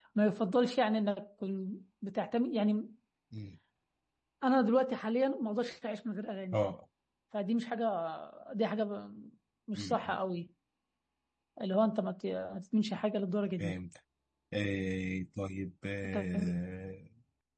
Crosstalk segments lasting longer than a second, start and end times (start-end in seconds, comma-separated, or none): none